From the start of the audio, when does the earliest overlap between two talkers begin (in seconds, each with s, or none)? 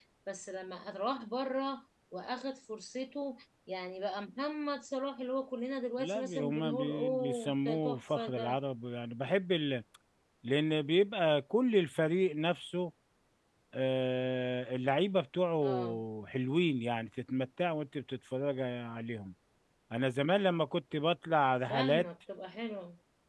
6.0 s